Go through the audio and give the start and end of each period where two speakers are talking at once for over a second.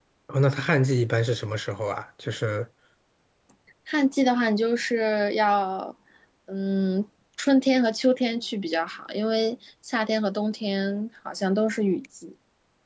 none

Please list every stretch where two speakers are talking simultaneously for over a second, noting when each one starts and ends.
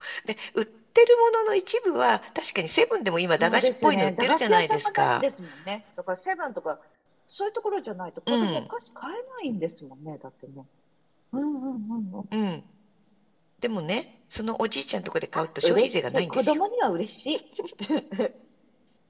3.4-5.2, 15.3-16.6

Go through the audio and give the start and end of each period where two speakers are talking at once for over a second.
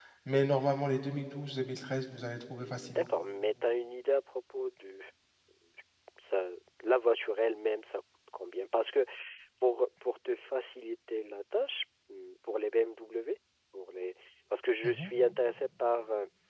none

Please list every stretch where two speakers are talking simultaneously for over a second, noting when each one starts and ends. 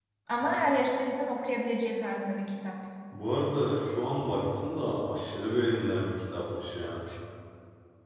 none

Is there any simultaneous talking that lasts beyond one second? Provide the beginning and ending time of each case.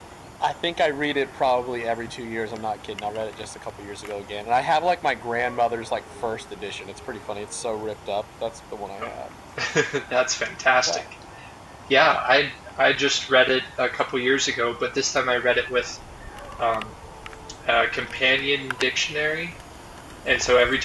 none

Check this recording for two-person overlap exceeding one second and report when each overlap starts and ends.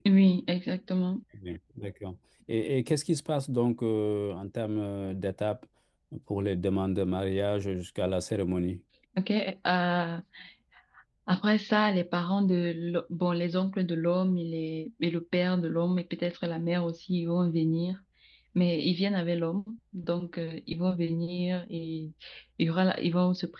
none

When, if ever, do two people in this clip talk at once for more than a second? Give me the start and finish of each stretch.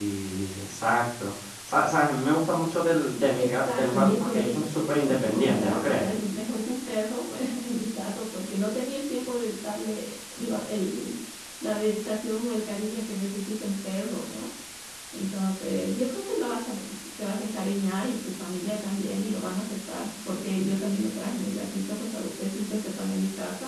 3.4-6.1

